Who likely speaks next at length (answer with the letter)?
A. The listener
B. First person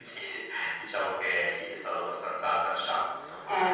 A